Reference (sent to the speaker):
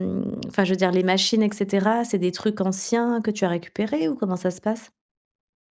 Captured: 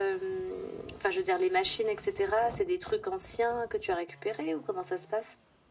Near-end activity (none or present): none